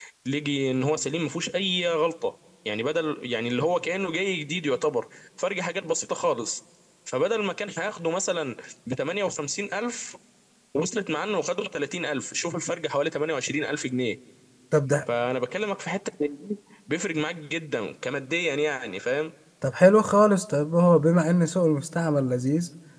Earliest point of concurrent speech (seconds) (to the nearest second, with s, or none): none